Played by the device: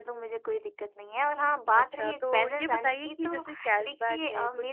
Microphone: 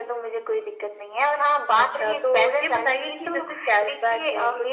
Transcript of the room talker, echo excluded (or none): none